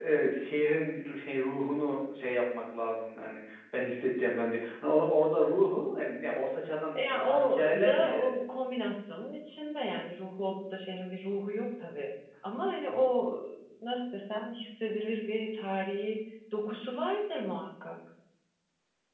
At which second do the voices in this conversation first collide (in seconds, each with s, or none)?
7.0 s